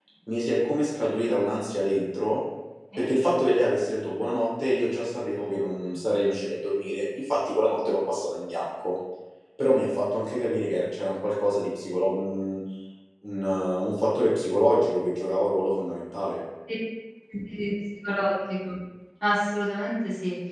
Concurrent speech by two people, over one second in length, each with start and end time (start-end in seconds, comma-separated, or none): none